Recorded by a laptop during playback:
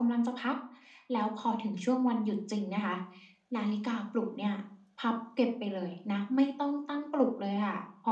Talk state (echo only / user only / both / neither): echo only